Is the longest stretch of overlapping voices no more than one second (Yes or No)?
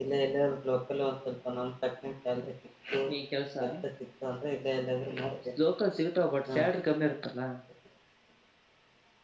Yes